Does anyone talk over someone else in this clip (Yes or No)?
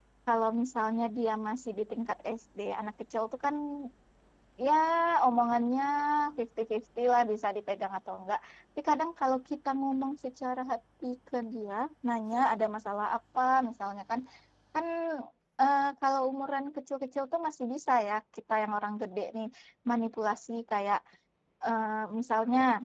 No